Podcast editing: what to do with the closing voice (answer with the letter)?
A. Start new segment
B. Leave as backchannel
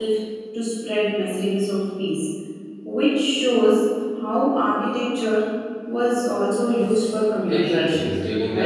A